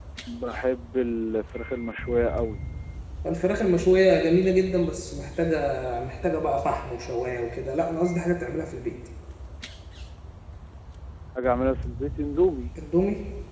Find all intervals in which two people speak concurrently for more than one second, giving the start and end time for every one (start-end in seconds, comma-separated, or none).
none